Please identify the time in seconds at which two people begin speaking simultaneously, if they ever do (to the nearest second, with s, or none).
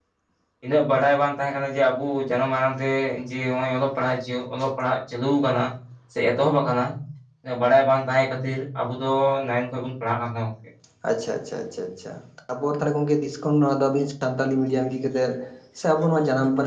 none